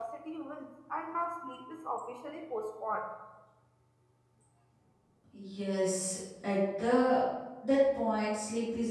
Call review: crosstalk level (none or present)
none